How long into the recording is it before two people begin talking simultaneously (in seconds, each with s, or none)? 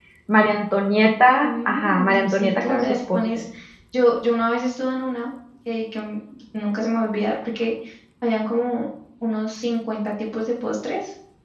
1.4 s